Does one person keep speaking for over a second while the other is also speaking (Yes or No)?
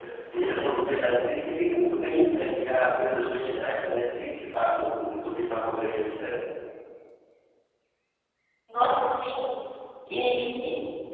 No